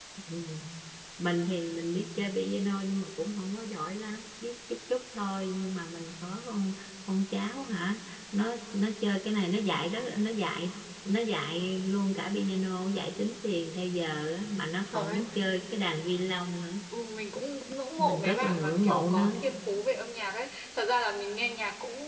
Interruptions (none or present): present